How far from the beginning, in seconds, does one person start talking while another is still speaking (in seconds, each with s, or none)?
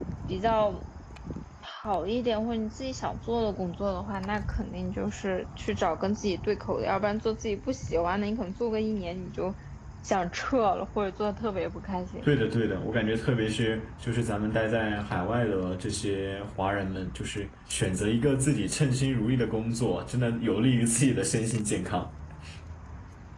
none